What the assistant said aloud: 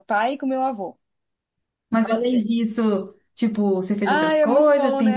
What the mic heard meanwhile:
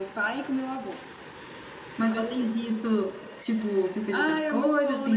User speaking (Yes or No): No